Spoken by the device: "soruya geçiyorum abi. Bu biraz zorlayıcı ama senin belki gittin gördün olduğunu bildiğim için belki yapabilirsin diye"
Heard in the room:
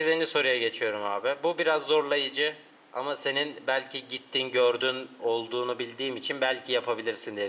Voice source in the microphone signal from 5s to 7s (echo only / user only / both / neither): echo only